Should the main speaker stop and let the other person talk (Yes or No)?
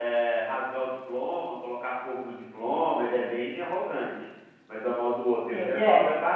No